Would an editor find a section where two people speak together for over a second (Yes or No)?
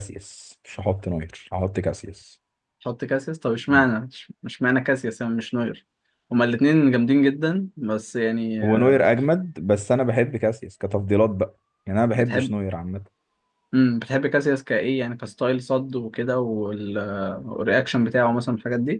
No